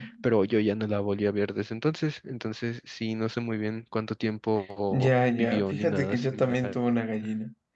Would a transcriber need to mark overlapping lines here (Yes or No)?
Yes